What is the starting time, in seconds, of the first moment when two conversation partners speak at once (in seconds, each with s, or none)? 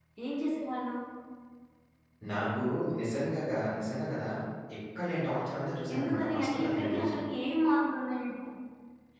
5.9 s